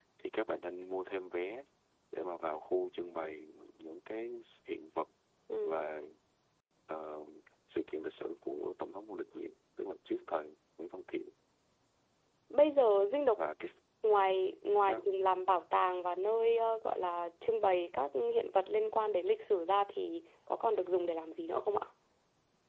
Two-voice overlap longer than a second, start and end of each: none

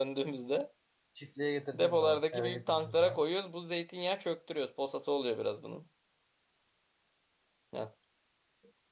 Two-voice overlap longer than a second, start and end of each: 1.7-3.2

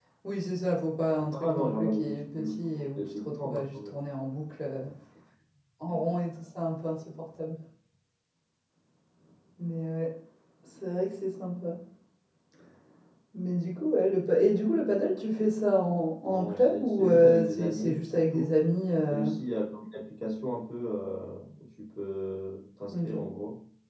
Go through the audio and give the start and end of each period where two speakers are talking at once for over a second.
1.3-3.9, 16.3-18.5

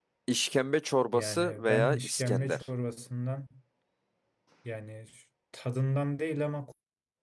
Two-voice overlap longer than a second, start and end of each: 1.1-2.6

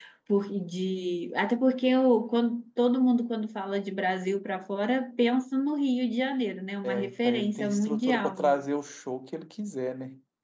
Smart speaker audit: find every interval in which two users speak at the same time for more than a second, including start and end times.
6.8-8.6

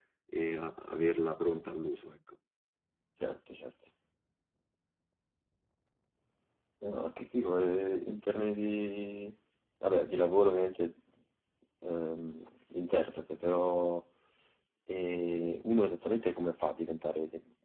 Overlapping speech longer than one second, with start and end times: none

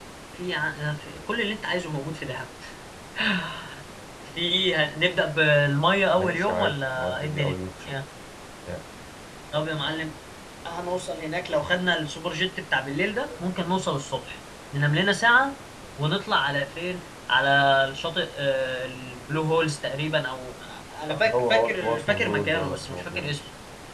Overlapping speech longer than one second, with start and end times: 6.2-7.5, 21.1-23.4

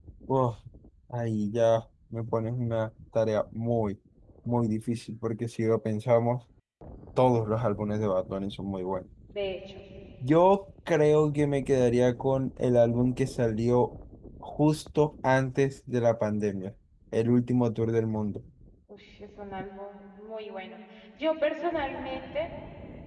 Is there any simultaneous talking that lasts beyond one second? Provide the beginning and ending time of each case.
none

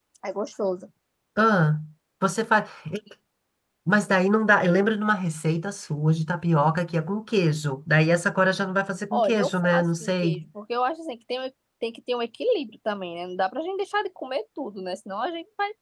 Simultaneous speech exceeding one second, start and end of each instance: 9.1-10.3

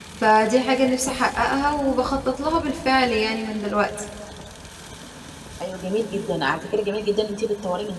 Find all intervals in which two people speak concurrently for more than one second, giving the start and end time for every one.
none

